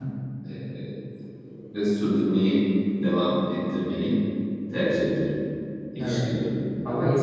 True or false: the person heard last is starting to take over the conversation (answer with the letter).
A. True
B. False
A